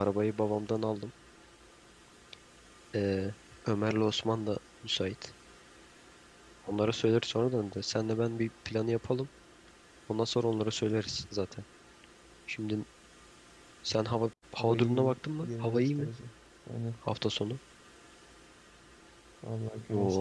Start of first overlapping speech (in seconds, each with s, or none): 14.6 s